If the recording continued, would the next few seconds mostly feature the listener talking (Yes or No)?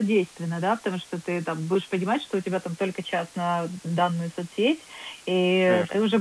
No